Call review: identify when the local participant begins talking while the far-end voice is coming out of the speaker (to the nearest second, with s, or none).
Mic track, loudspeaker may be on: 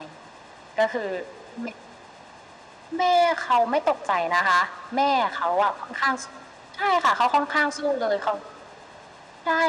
none